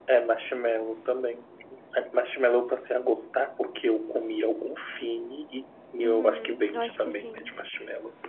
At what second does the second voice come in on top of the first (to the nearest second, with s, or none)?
6 s